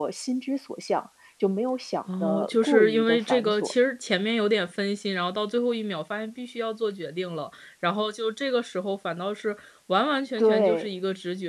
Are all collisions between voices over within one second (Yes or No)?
No